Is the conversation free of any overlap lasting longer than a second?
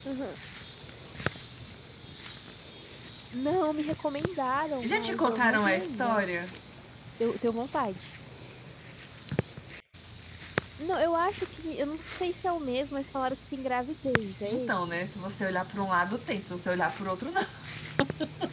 No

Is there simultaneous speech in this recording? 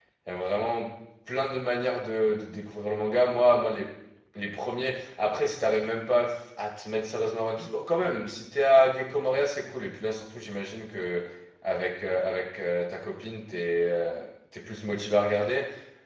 No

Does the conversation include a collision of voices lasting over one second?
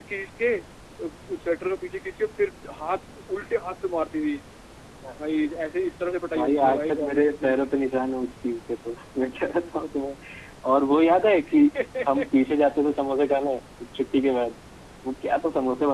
Yes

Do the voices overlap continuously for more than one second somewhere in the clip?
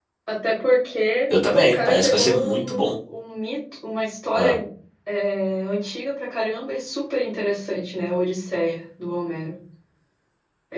Yes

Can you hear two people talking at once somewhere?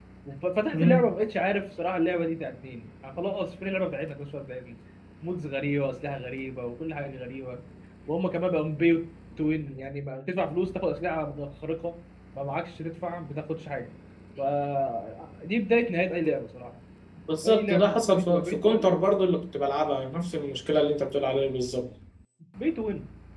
Yes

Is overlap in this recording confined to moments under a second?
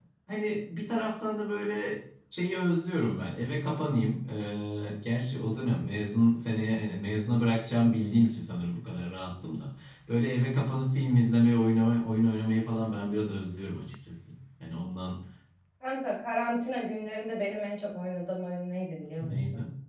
Yes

